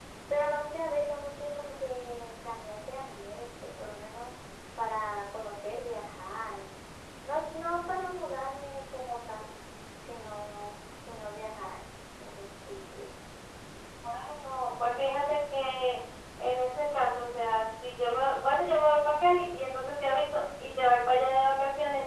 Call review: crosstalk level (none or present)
none